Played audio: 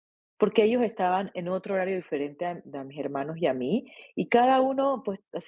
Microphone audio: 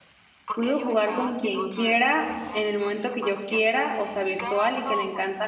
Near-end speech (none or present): present